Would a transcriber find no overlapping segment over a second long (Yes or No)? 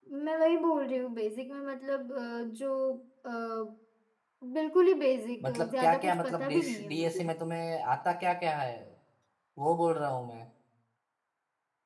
No